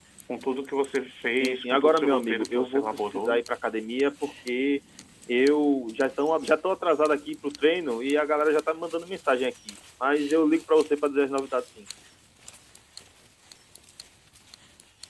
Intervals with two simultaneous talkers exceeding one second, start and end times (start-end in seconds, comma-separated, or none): 1.3-3.4